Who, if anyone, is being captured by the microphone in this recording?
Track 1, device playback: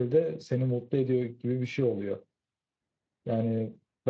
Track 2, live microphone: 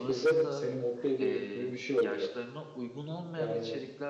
both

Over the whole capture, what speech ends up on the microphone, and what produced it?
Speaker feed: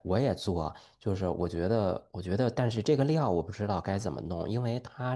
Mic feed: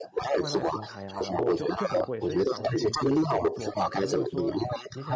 both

